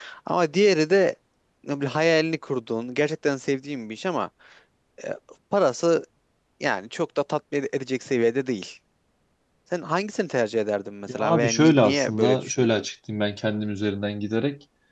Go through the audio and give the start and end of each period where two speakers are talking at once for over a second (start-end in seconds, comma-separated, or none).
11.1-12.8